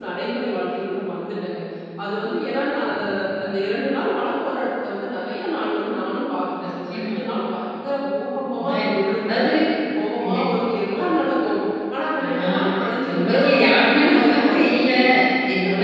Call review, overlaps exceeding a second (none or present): present